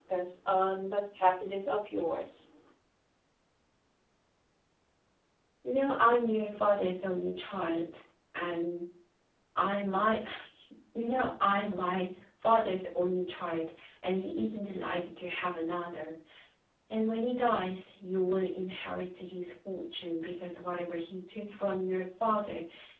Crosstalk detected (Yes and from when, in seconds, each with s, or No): No